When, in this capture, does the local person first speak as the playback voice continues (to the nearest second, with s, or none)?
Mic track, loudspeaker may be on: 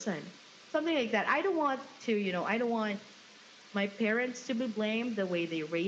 none